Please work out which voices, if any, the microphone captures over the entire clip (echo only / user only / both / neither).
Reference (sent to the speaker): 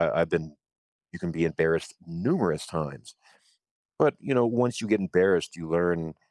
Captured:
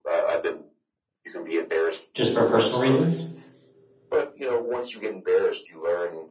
both